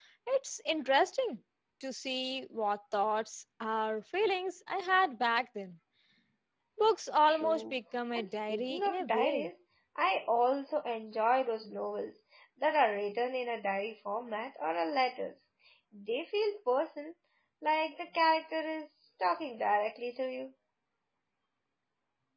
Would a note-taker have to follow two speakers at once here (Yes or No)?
Yes